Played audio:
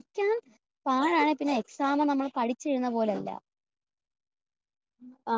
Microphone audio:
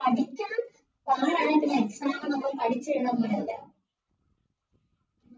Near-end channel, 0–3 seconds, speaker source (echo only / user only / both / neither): echo only